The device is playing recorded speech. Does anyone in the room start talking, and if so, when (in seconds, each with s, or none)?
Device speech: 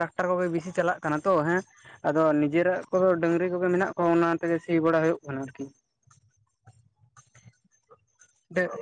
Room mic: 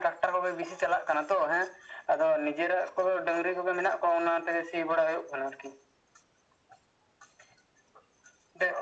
none